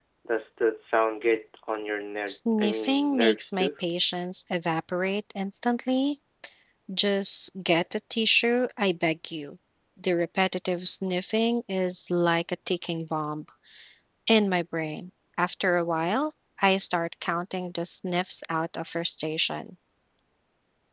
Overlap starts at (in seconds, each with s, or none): 2.3 s